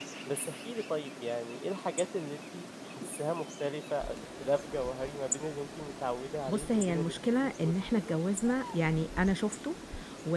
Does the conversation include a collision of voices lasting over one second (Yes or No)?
Yes